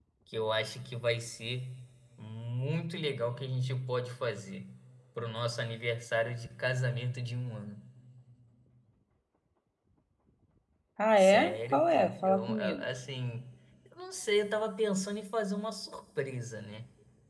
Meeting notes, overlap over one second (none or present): present